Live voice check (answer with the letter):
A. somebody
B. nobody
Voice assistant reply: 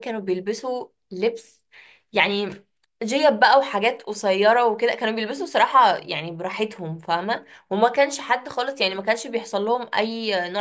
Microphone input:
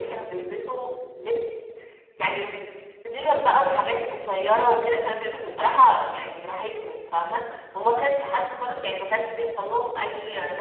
B